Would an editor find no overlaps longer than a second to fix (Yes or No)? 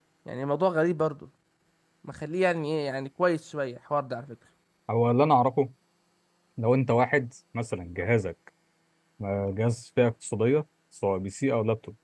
Yes